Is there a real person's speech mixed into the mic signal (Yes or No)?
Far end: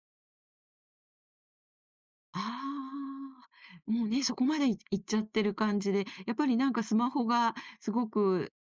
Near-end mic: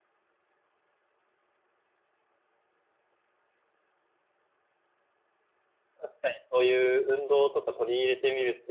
Yes